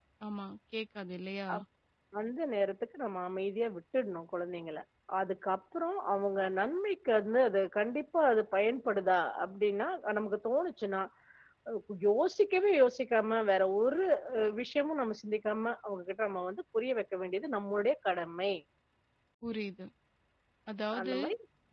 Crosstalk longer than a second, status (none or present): none